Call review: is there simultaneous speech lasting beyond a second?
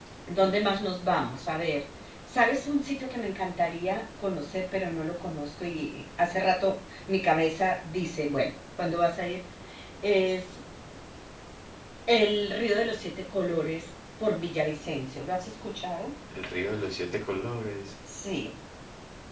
No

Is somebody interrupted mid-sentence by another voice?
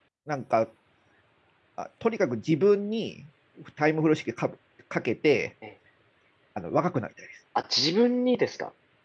No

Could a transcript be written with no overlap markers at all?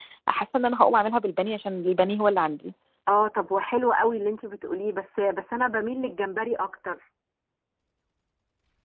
Yes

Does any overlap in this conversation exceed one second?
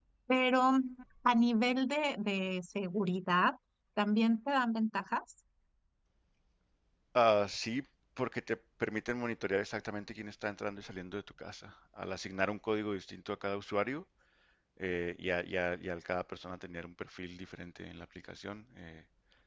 No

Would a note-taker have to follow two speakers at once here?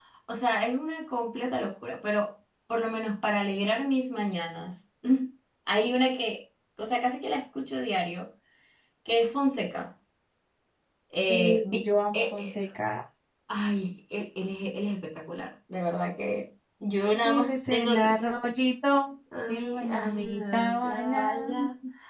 Yes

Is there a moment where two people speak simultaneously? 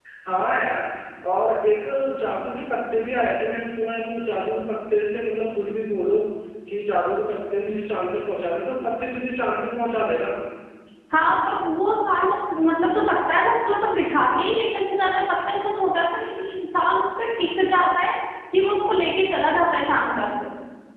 No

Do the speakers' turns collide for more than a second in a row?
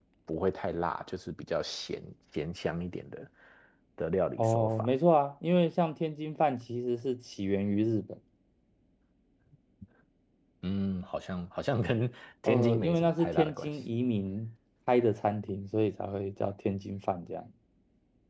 Yes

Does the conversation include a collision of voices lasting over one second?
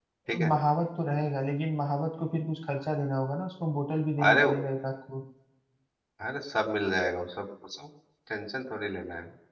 No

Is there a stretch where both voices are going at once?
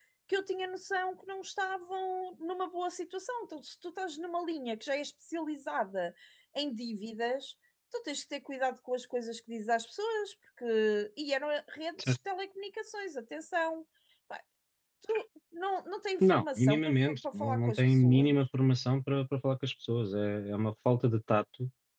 Yes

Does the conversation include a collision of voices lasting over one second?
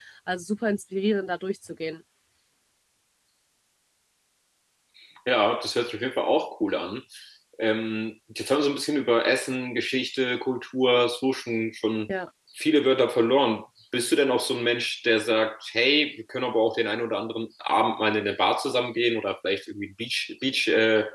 No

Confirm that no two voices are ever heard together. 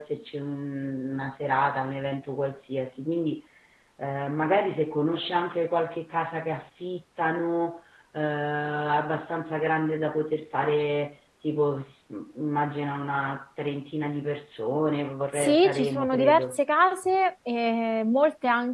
No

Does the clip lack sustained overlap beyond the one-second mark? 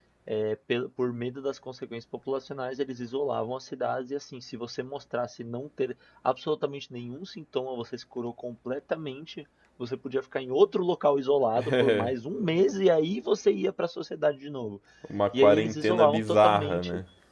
No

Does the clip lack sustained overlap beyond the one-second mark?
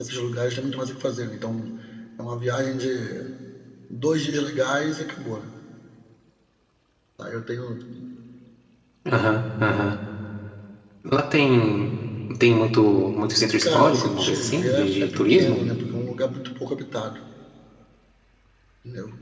No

